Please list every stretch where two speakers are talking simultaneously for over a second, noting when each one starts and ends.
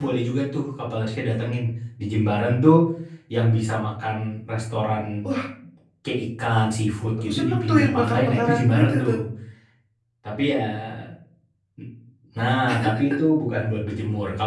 7.2-9.1

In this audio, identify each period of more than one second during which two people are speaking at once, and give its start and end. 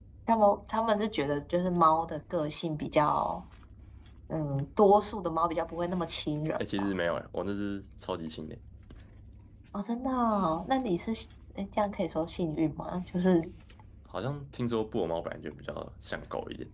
none

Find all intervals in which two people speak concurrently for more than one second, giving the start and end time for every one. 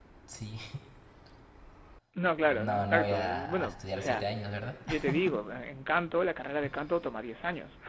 2.5-4.2

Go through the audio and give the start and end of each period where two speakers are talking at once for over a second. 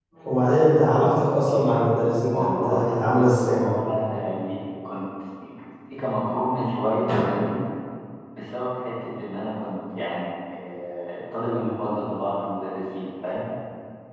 2.3-3.6

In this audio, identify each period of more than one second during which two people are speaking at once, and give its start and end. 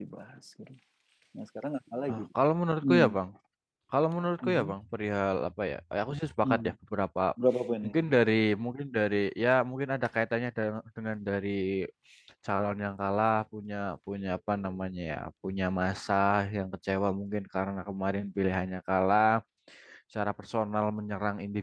none

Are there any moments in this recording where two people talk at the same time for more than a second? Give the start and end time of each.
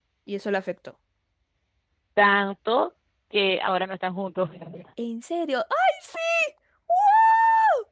none

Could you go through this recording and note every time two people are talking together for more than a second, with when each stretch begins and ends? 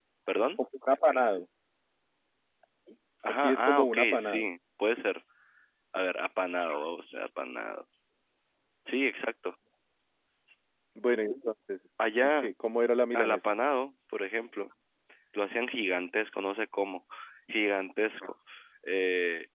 3.3-4.5

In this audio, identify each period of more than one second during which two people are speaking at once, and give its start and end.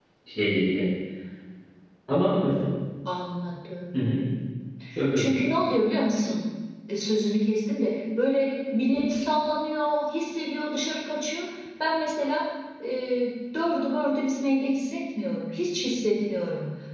none

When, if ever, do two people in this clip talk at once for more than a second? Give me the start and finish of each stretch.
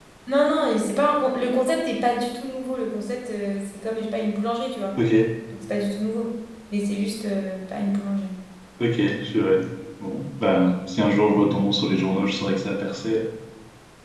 none

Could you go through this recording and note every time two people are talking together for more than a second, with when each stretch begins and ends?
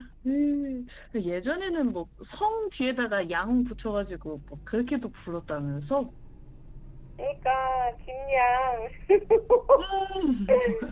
none

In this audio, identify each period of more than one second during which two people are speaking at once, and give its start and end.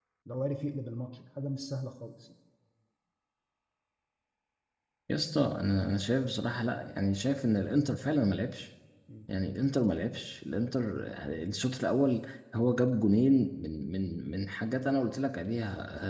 none

